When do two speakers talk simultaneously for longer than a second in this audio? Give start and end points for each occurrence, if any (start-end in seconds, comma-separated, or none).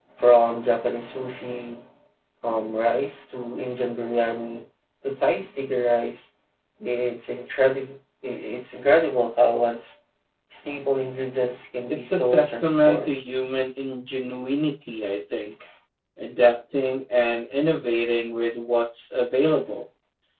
11.9-13.1